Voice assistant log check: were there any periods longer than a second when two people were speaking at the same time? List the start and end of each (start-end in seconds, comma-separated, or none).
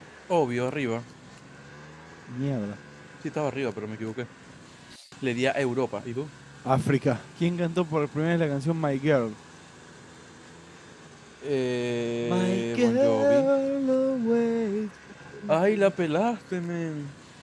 12.2-13.5